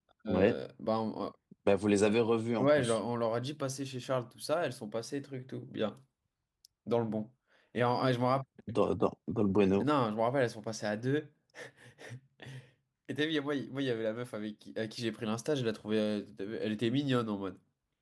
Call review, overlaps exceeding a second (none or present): none